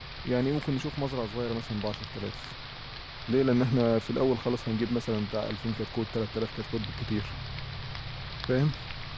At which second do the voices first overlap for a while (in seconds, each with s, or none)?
none